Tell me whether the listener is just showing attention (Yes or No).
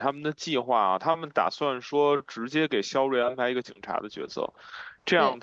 Yes